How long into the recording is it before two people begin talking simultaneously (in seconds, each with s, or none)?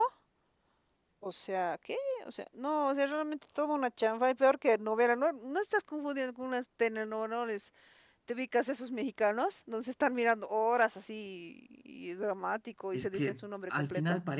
12.9 s